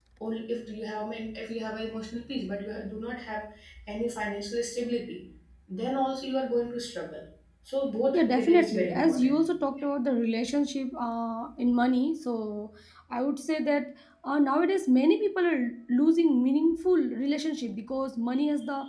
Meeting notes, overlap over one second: present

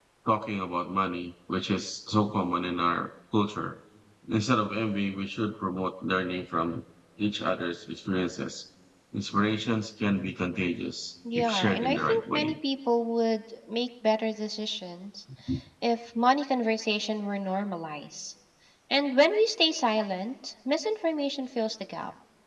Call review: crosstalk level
present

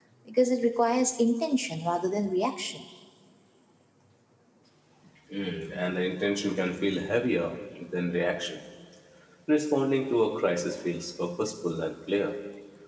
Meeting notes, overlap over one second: none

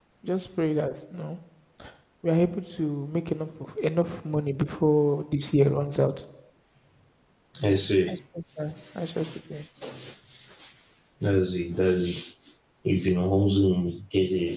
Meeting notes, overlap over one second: none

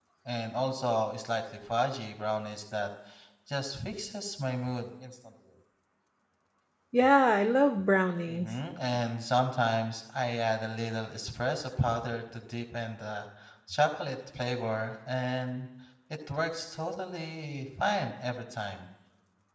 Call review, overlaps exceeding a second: none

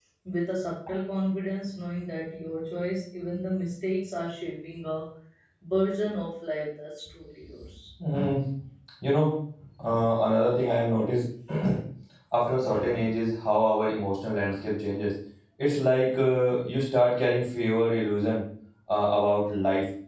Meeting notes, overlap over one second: none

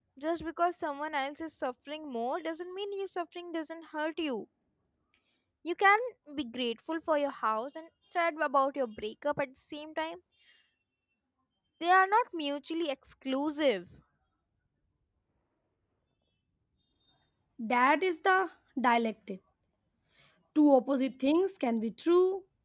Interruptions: none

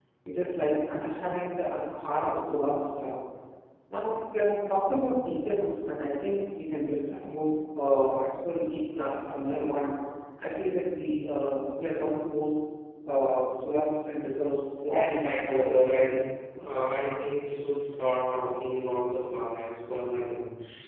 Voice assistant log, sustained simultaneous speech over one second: present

